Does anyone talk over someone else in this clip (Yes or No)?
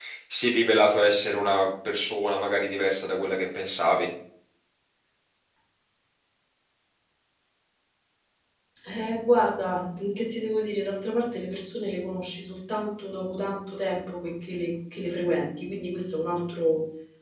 No